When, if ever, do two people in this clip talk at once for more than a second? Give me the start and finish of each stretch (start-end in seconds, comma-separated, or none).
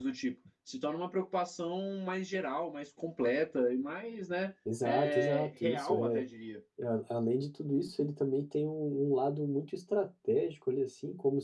4.8-6.2